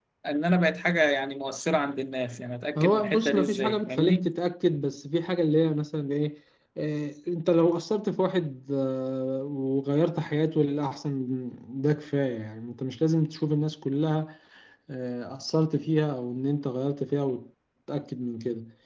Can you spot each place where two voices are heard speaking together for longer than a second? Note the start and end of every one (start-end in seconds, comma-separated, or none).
2.8-4.3